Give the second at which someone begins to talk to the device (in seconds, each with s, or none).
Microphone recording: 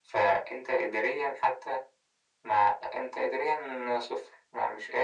none